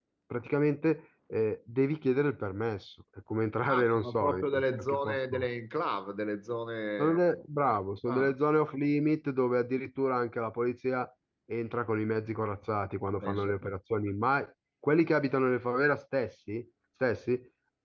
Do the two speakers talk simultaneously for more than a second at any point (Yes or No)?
Yes